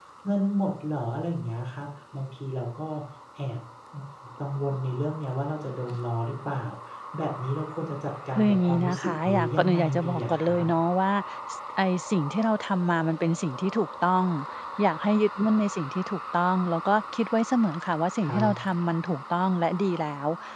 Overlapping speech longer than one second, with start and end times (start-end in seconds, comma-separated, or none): 8.3-10.6